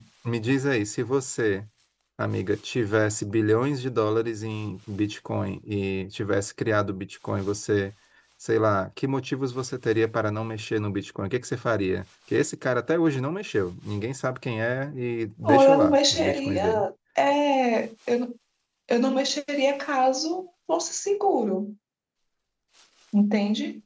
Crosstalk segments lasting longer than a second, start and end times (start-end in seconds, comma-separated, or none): 15.4-16.8